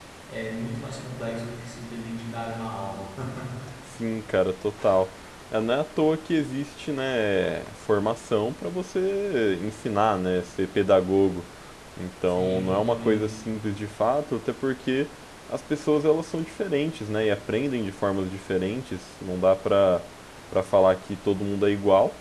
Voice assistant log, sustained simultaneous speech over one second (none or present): present